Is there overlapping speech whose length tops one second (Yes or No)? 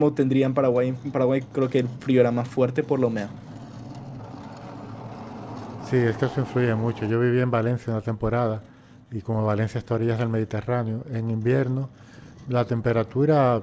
No